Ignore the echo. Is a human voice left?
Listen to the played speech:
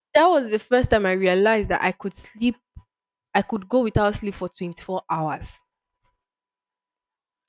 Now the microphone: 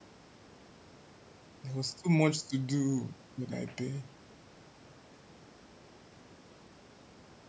Yes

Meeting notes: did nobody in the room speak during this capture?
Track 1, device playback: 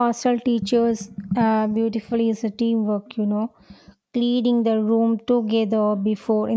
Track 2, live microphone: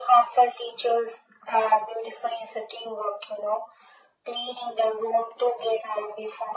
Yes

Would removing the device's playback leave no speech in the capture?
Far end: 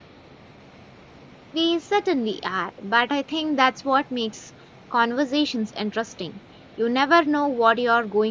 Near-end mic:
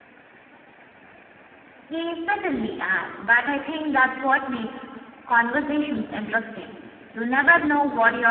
Yes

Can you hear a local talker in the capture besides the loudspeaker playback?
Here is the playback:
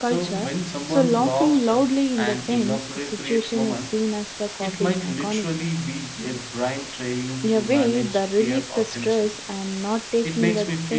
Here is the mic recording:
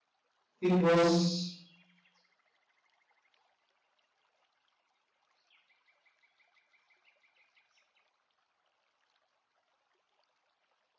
Yes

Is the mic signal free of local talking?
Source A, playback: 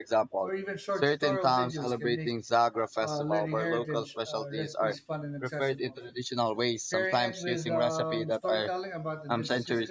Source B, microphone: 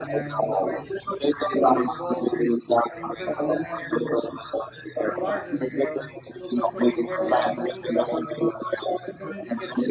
No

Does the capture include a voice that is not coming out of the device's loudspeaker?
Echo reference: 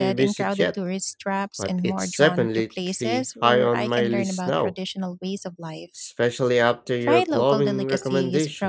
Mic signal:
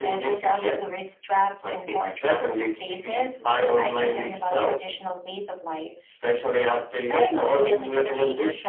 Yes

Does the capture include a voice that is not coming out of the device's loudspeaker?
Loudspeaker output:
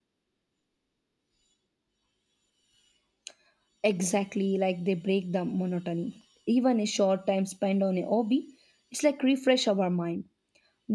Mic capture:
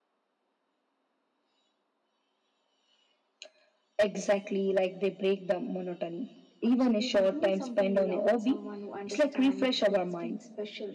Yes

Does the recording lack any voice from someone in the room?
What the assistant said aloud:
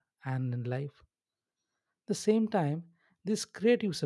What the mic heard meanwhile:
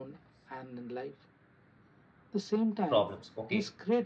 No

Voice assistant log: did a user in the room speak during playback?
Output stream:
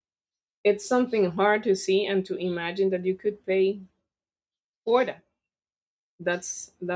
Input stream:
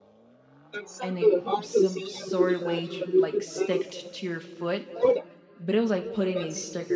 Yes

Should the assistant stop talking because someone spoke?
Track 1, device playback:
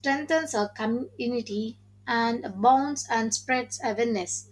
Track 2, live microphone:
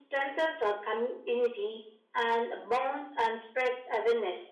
No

